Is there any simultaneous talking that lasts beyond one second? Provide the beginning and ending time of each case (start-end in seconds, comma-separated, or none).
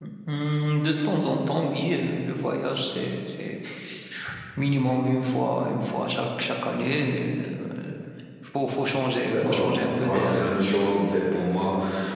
9.2-10.4